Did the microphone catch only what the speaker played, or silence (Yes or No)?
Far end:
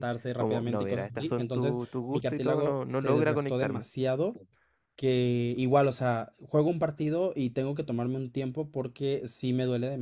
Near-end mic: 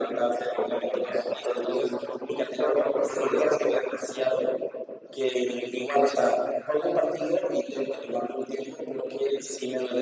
Yes